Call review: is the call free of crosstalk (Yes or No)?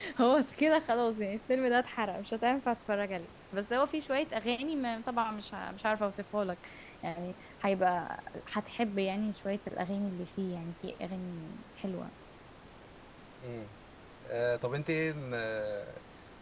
Yes